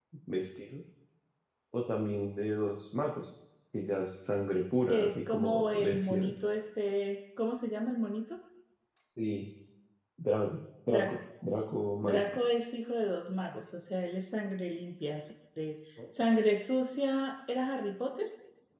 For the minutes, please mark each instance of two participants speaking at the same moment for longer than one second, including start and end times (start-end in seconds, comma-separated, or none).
4.9-6.3